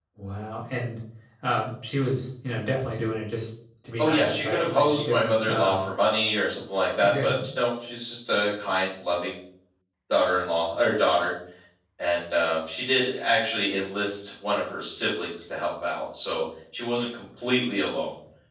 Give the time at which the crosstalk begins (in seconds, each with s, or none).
4.0 s